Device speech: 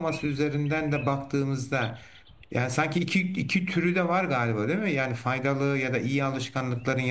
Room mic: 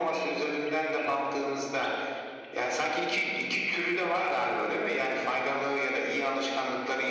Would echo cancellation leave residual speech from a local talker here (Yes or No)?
No